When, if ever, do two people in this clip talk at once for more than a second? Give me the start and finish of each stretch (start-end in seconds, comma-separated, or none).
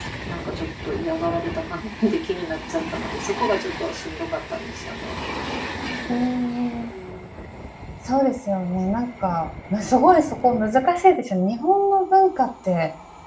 none